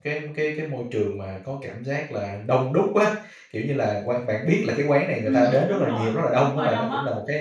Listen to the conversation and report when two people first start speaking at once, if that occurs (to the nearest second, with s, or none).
5 s